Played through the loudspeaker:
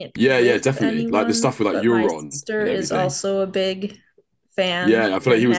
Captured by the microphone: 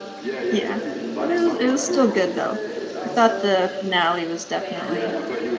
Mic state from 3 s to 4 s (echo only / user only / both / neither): both